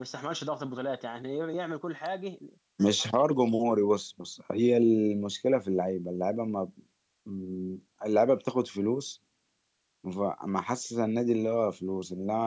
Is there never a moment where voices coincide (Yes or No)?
Yes